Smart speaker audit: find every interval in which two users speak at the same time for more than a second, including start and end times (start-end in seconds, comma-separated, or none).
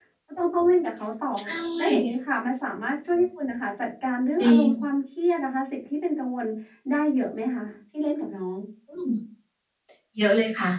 none